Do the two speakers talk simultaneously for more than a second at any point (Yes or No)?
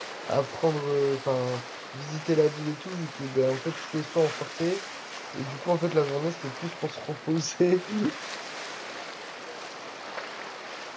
No